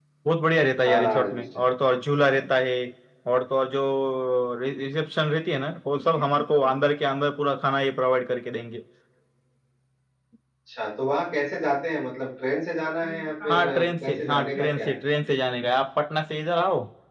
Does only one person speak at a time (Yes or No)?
No